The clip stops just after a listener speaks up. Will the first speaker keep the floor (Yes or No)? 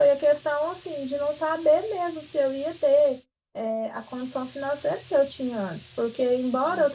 Yes